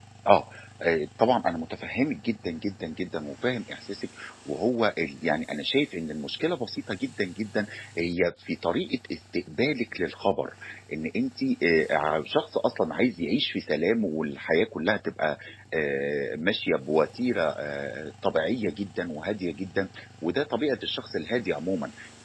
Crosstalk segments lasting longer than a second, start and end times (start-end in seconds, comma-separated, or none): none